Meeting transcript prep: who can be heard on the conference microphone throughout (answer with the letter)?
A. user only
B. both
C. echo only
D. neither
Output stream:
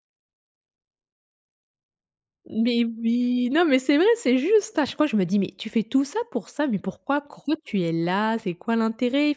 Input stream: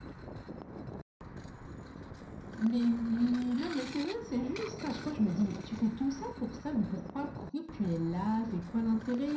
C